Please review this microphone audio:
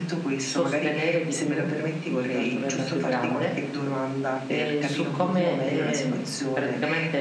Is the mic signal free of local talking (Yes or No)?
No